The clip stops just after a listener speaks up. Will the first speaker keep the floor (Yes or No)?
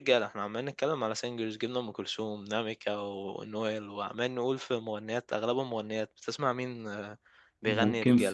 No